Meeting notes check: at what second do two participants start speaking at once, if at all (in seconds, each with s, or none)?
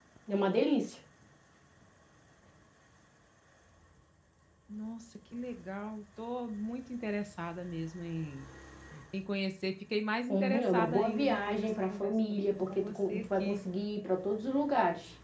10.3 s